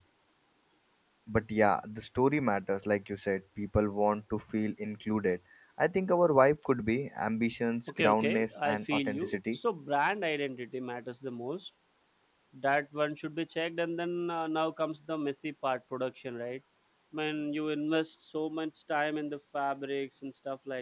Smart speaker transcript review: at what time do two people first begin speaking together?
7.9 s

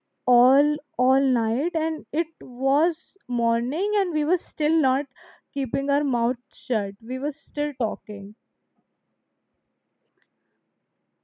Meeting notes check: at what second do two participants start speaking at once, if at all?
none

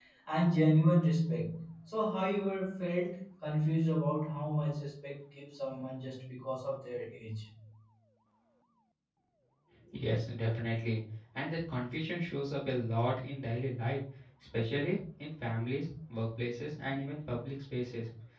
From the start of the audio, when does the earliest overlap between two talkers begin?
none

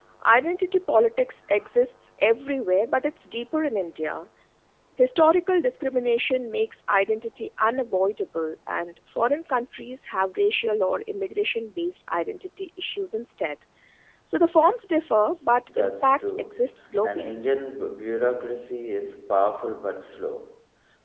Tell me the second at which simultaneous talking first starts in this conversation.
15.7 s

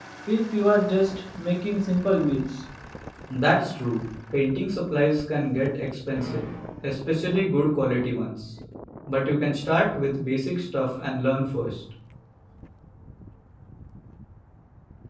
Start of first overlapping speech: none

